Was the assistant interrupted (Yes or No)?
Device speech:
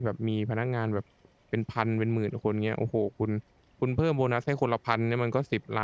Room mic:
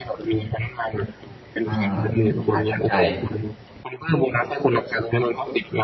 Yes